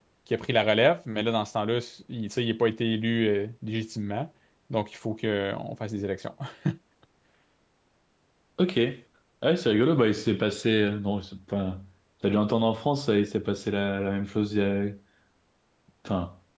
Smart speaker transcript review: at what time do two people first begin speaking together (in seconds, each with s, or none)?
none